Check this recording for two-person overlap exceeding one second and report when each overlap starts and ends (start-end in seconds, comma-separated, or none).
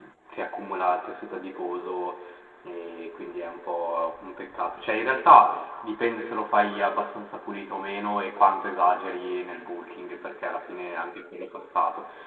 none